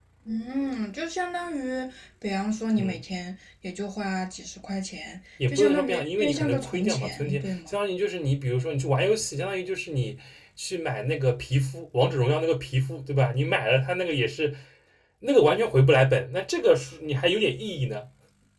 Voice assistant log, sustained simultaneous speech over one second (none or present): present